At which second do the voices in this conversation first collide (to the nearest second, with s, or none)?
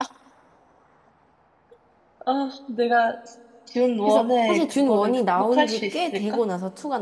4 s